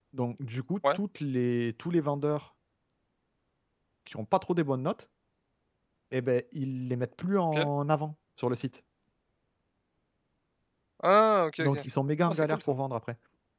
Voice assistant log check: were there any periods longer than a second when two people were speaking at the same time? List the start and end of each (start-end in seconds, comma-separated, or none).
none